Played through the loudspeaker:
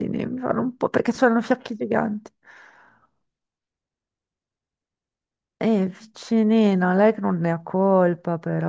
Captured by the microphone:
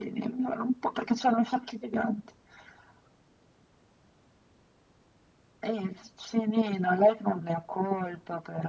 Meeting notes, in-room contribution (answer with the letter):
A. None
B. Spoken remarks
A